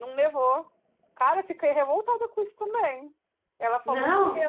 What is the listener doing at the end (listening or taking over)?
listening